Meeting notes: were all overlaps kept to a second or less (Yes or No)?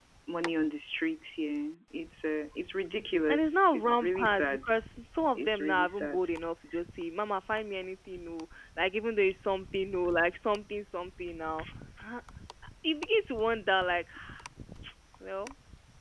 No